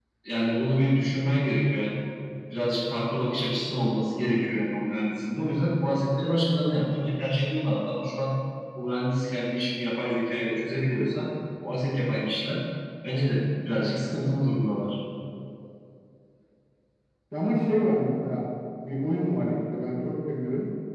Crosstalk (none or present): none